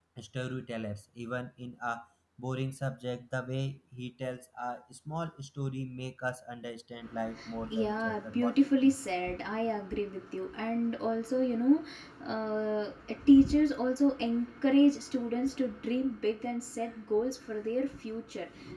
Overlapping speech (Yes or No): Yes